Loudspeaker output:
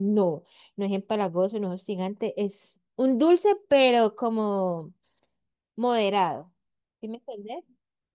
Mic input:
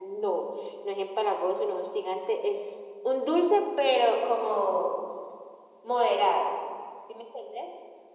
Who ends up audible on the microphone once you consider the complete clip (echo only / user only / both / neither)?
echo only